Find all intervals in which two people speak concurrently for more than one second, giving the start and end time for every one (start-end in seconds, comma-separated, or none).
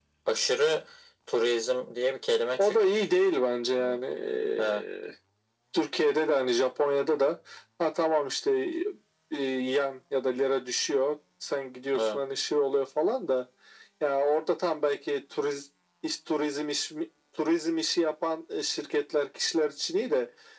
none